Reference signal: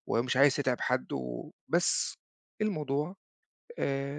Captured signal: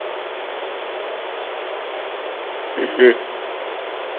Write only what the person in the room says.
اهم.

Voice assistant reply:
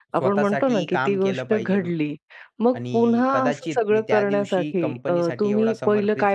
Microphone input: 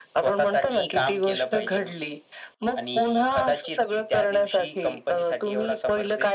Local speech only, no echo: none

